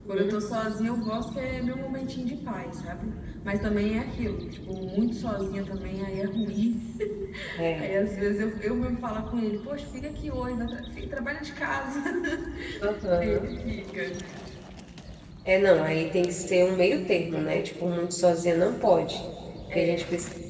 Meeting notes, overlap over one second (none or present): none